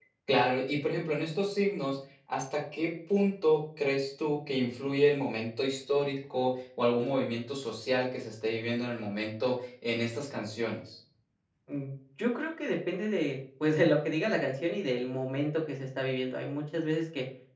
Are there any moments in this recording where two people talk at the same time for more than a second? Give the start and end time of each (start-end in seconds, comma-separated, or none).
none